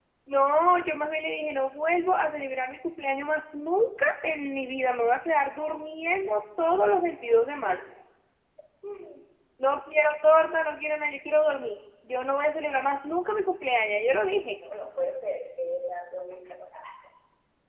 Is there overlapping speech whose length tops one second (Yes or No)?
No